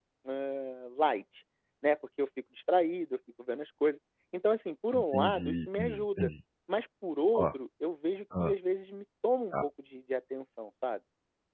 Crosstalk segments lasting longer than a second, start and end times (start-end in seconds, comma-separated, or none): 4.9-6.3